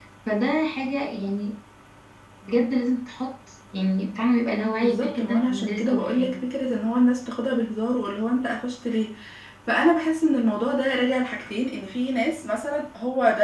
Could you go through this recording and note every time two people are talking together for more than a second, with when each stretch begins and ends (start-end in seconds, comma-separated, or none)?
4.8-6.4